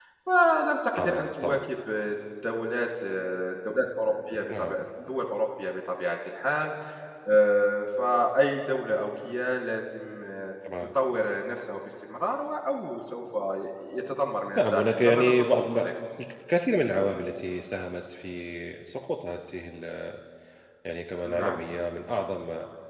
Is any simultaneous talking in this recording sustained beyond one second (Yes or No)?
Yes